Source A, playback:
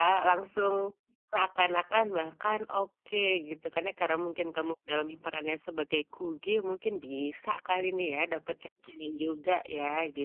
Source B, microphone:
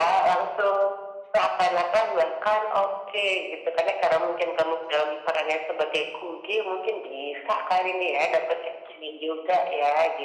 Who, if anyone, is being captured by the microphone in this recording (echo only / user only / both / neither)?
echo only